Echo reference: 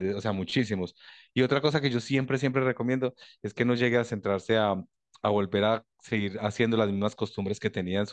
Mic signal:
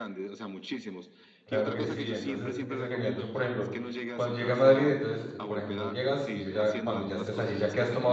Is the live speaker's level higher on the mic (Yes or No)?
Yes